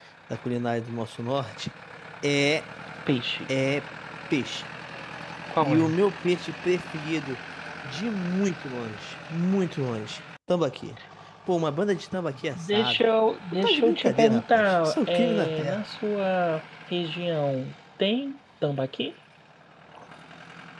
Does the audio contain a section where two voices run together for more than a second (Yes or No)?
Yes